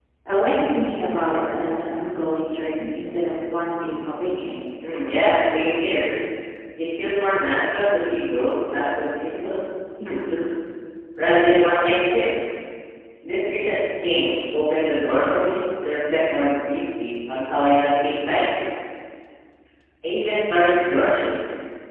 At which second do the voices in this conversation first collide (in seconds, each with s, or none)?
none